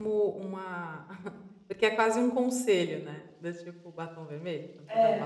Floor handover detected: Yes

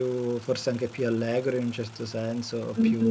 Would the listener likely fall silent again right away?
No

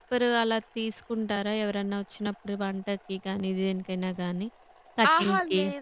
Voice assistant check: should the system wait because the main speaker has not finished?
No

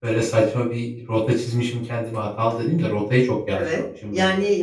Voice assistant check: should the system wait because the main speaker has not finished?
No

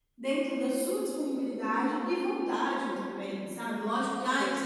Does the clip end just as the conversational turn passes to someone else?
No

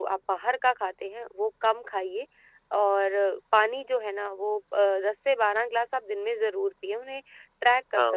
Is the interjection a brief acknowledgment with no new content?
Yes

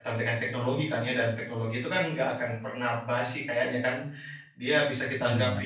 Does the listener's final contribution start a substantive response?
No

